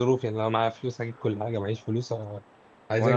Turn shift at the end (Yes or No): Yes